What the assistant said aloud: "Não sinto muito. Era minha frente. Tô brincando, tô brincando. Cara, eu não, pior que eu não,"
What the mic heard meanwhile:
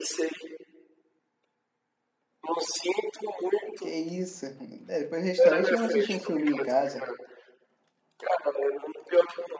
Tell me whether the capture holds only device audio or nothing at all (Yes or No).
No